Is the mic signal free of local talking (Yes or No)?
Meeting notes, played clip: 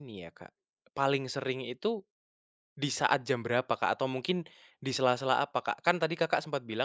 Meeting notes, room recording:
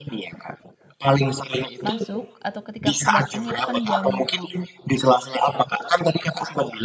No